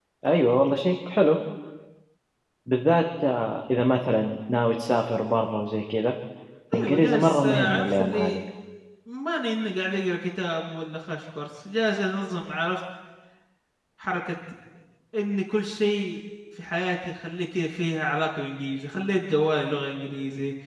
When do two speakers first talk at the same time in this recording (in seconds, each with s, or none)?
6.7 s